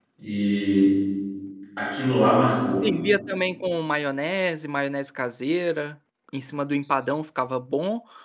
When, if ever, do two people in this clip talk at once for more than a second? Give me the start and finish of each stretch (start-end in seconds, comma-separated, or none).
none